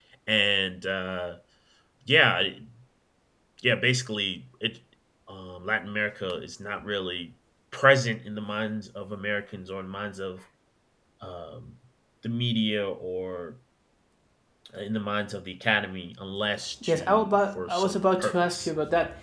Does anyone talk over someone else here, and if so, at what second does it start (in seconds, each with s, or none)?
16.8 s